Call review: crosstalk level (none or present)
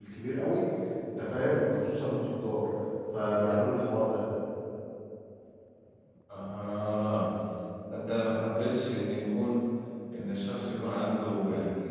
none